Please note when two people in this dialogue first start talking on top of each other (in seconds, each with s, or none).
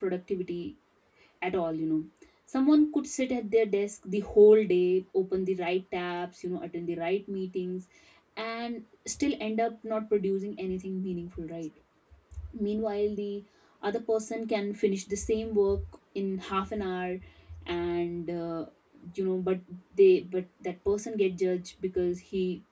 none